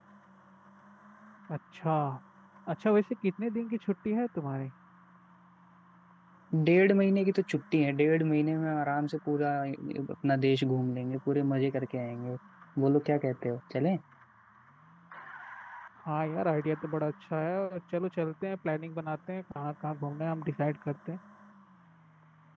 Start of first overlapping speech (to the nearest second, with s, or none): none